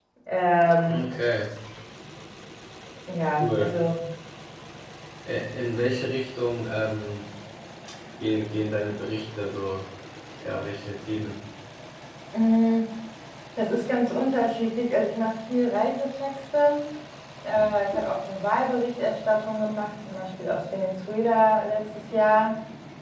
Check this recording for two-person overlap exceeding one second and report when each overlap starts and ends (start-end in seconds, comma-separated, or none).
none